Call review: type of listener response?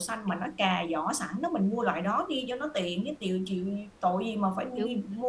taking over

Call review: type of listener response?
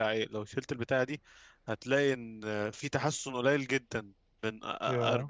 listening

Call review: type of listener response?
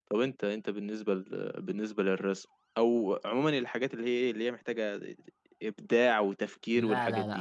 taking over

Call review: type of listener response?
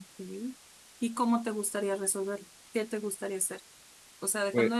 listening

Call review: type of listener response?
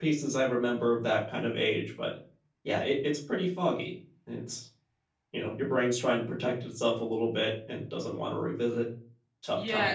taking over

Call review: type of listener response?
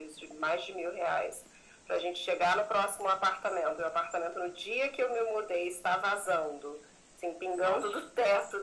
listening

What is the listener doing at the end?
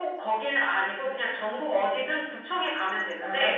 listening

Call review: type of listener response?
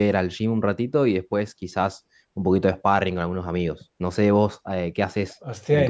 taking over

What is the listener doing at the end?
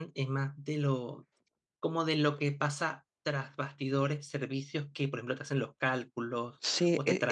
taking over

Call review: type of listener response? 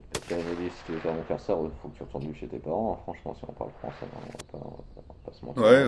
taking over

